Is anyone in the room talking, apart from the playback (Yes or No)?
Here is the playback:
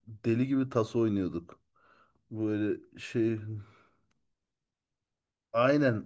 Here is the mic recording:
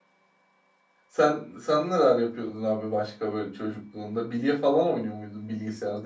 Yes